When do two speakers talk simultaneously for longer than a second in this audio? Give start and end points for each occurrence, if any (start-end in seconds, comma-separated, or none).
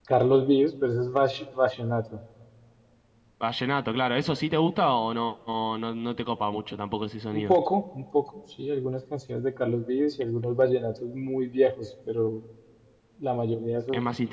none